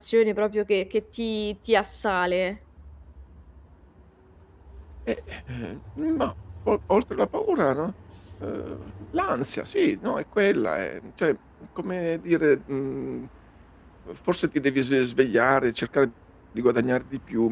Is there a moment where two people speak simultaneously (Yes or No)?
No